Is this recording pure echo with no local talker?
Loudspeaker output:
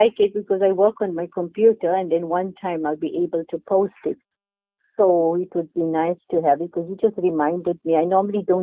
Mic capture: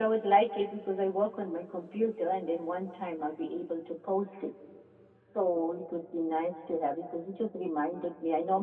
Yes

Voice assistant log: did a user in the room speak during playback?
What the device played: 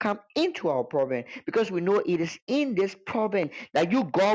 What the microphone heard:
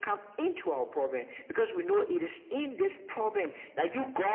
No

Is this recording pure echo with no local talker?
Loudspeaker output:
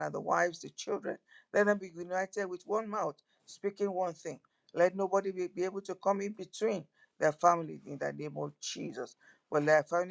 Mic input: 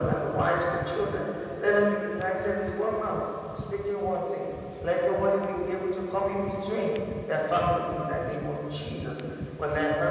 Yes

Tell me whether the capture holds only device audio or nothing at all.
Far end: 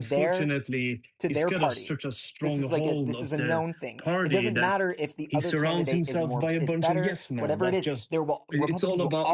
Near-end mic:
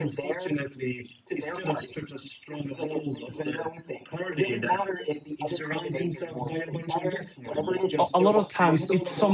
No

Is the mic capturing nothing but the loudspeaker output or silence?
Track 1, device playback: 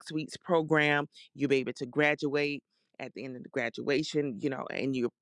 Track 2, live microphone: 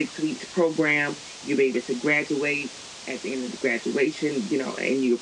Yes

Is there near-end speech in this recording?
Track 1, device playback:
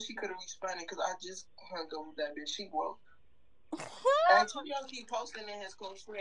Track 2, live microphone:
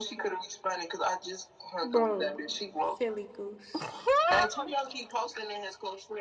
Yes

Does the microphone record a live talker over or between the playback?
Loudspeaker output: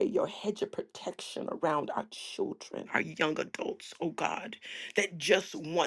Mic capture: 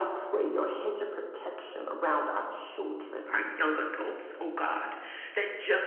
No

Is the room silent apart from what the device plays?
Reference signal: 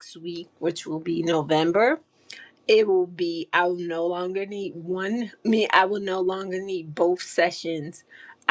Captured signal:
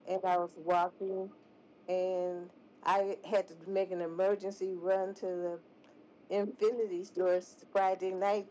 No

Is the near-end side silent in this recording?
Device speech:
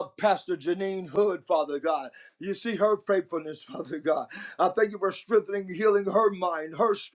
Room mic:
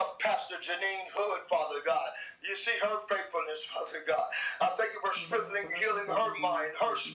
No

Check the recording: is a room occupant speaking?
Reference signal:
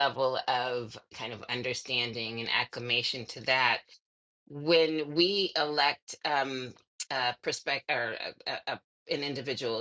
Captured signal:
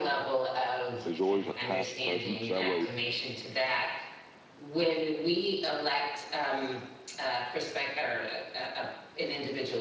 Yes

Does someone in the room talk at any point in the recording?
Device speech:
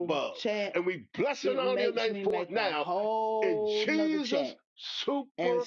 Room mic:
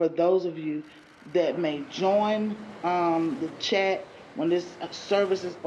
Yes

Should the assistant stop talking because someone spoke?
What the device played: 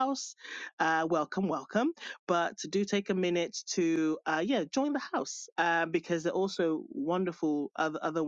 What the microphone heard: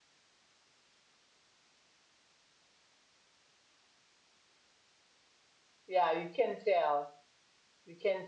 Yes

